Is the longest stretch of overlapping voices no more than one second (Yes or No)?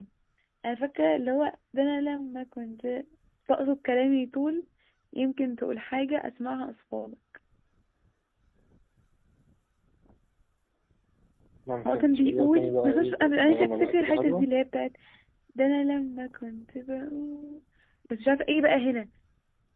No